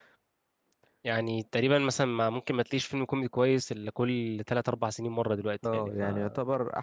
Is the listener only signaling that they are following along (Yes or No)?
No